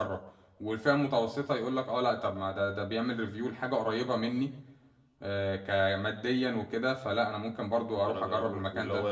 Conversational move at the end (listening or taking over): taking over